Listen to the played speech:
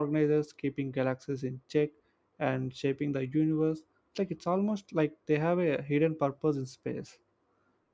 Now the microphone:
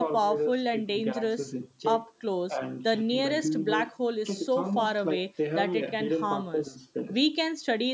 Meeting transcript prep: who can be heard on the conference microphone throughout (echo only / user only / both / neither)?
both